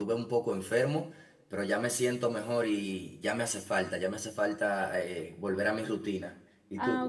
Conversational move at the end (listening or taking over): taking over